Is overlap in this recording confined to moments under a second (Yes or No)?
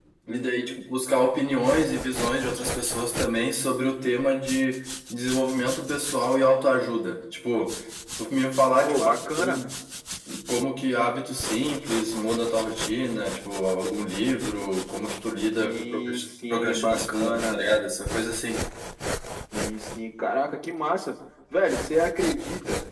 No